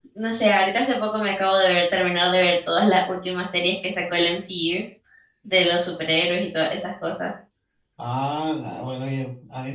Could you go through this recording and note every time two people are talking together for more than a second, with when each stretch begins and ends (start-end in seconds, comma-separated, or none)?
none